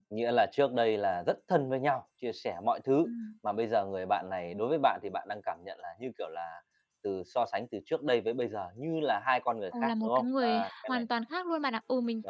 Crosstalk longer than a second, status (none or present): present